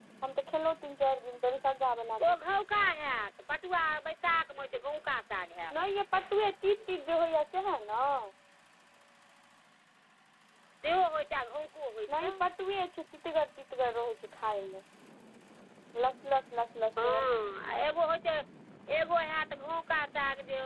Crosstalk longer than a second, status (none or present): none